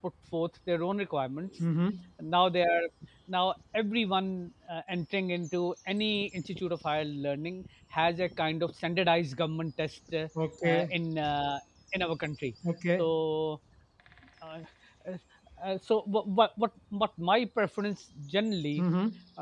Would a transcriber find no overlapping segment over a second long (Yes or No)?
Yes